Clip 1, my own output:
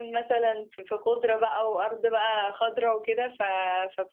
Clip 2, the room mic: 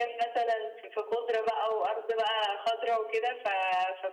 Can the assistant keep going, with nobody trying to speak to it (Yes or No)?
Yes